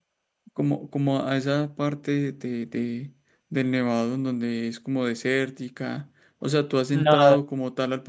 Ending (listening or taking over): listening